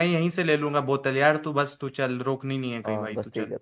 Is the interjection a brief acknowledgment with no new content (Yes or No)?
No